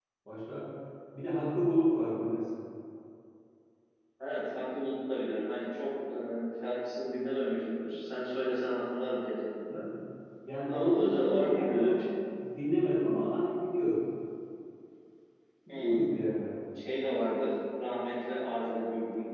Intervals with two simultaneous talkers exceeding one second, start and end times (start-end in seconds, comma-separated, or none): 10.7-12.1